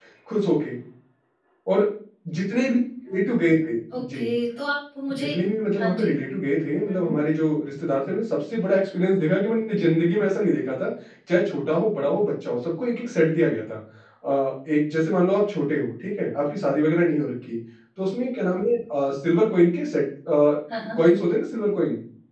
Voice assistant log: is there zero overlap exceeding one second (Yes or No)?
Yes